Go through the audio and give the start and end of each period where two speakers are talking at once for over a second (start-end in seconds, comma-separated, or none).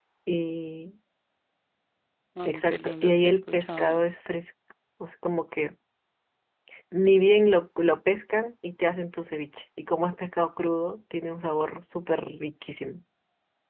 2.4-4.0